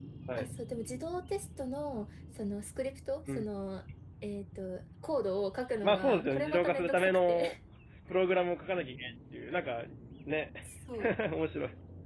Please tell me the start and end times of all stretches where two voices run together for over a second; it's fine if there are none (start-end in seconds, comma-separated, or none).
5.8-7.4